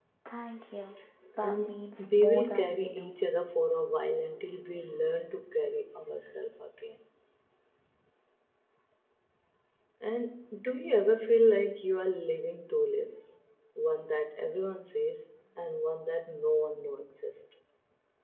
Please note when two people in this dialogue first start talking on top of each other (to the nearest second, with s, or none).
1 s